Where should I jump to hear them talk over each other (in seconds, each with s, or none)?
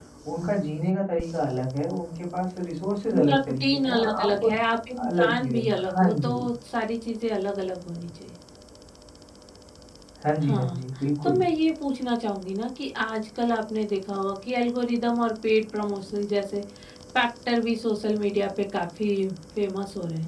3.1 s